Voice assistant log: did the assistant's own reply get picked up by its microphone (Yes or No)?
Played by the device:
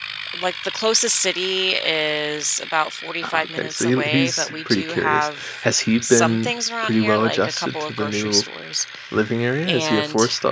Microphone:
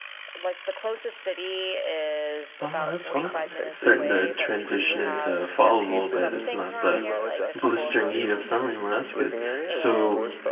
Yes